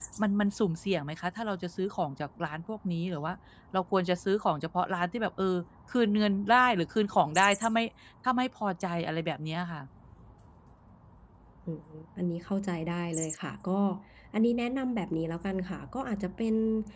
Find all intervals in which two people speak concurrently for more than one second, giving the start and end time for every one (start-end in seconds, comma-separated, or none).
none